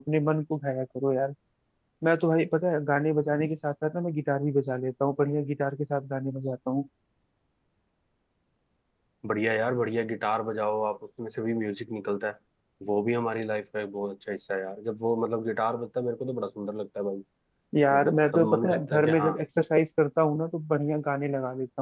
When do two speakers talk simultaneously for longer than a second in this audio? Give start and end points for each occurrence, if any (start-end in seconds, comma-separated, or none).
17.9-19.3